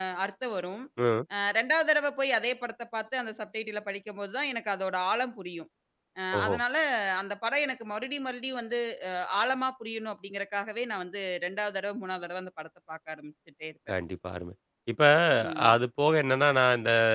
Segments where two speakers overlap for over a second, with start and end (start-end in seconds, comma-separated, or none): none